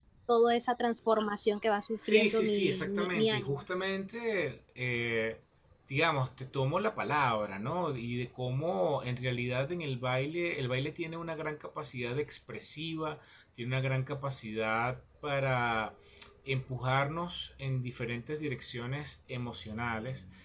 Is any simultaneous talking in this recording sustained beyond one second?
Yes, from 2.0 s

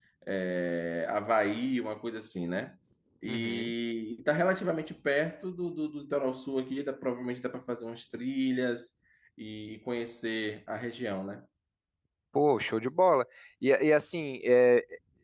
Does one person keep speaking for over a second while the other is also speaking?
No

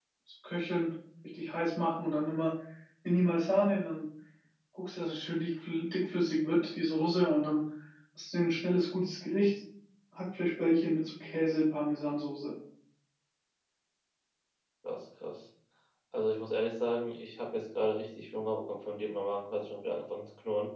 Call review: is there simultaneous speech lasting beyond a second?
No

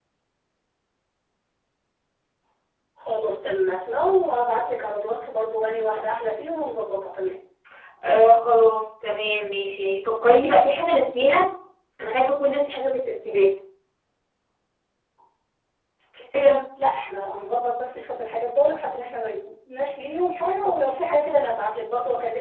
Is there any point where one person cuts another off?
No

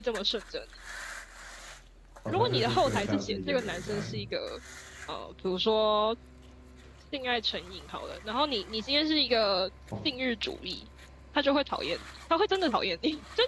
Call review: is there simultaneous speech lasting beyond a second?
Yes, from 2.3 s

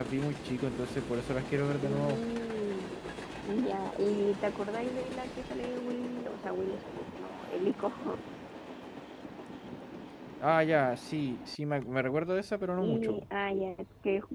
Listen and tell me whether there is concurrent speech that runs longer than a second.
No

